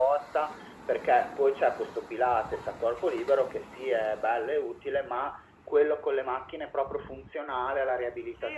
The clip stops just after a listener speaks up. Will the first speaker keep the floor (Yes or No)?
No